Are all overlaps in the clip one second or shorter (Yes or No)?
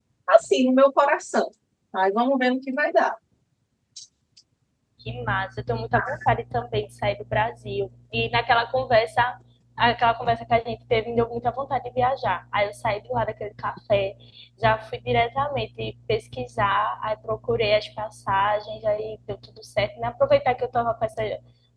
Yes